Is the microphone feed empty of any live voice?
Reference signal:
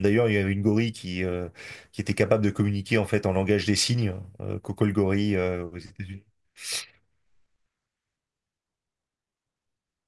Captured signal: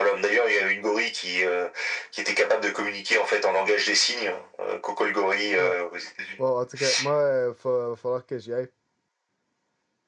No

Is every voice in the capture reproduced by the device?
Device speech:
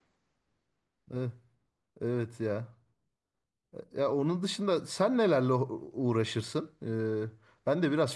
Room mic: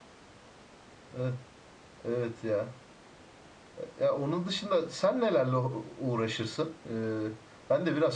Yes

